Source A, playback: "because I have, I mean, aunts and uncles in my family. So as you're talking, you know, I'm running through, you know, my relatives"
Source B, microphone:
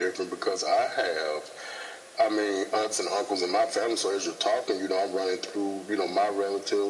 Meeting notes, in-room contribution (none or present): none